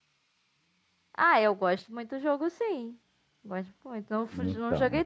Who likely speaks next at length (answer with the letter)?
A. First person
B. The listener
A